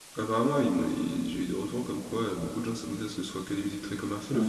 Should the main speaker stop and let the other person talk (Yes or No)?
Yes